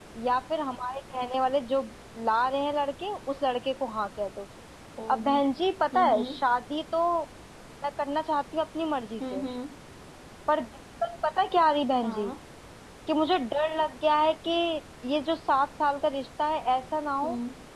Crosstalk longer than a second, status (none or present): none